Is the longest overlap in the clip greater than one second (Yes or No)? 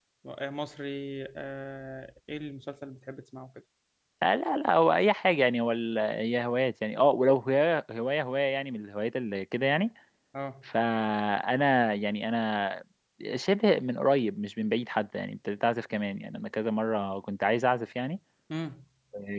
No